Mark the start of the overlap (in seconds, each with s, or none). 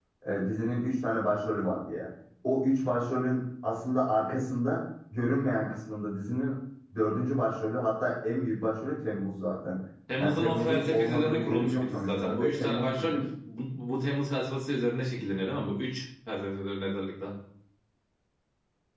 10.2 s